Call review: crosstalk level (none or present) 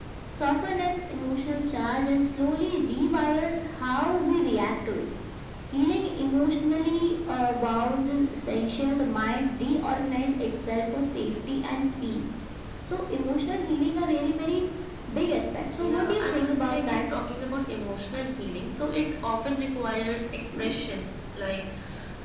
present